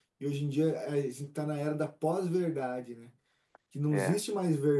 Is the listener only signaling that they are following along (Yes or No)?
Yes